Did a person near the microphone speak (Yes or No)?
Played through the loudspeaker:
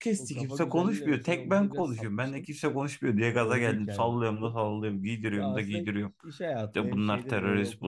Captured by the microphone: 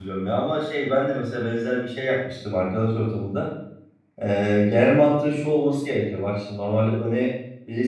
Yes